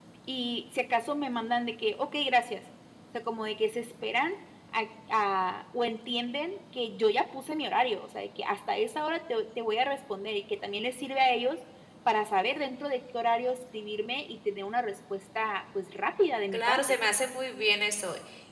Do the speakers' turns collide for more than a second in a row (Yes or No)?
No